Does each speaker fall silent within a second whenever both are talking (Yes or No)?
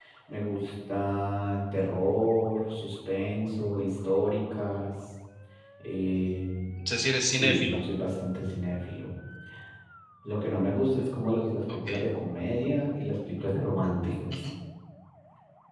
Yes